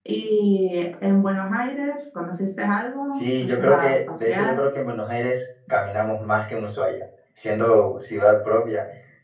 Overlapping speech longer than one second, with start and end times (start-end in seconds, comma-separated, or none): 3.1-4.7